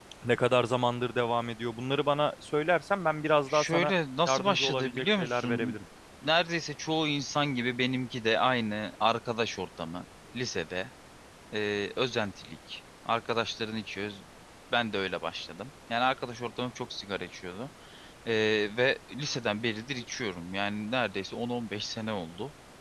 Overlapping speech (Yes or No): Yes